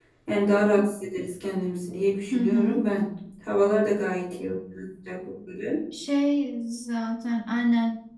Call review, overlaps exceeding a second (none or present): none